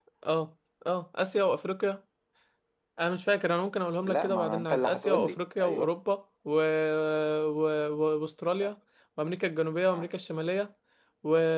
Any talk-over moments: Yes, from 4.0 s

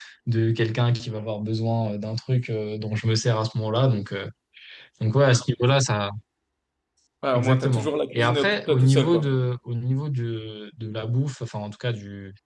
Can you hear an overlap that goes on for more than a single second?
Yes, from 7.3 s

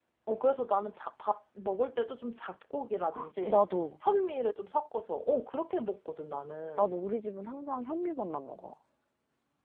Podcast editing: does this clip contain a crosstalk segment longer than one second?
No

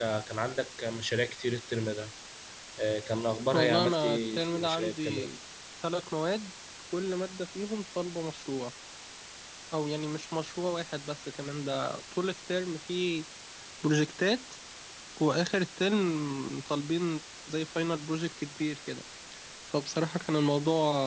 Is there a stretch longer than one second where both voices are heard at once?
Yes, from 3.5 s

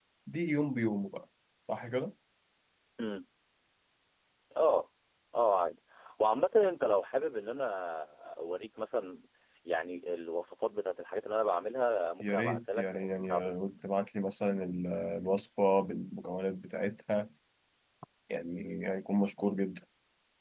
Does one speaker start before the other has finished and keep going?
Yes, from 12.2 s

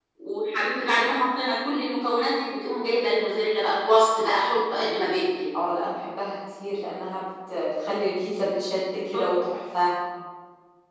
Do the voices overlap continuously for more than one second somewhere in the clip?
No

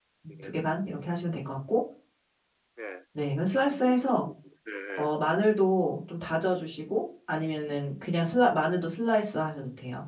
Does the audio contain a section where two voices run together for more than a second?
No

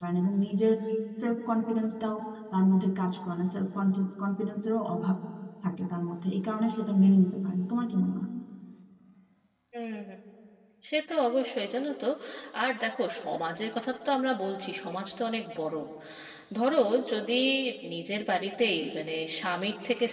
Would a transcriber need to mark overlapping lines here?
No

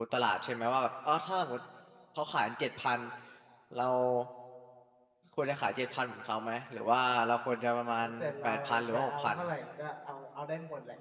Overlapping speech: Yes, from 8.0 s

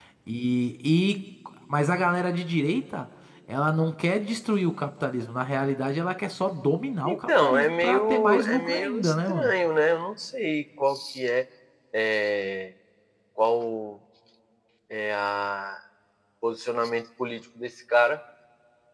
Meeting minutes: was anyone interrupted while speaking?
Yes, from 7.0 s

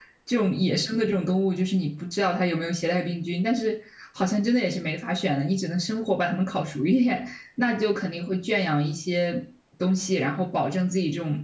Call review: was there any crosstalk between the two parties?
No

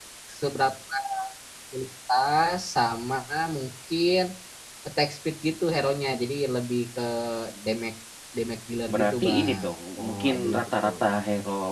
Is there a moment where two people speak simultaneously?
Yes, from 8.9 s

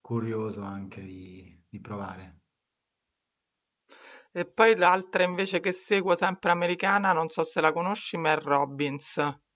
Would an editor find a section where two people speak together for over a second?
No

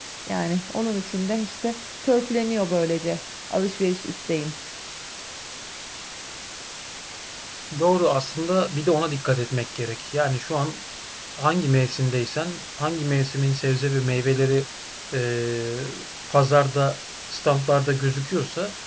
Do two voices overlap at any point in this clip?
No

